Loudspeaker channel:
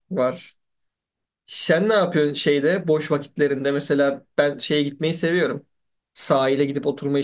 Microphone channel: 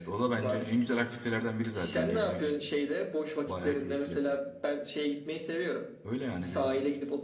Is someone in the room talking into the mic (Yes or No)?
Yes